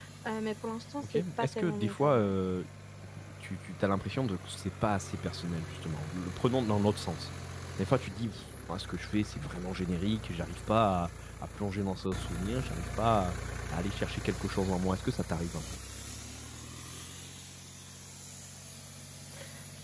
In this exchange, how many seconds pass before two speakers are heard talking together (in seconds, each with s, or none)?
1.0 s